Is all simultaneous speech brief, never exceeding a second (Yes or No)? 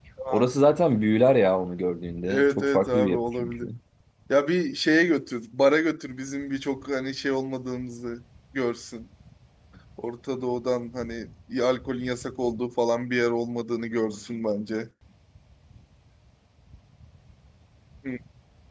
No